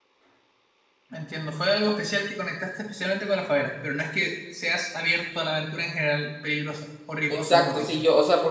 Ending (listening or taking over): taking over